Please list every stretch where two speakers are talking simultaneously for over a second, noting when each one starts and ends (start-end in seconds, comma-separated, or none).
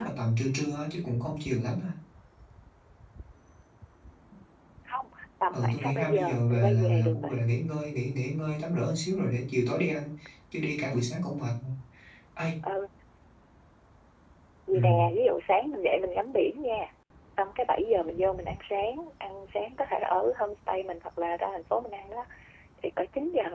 5.5-7.4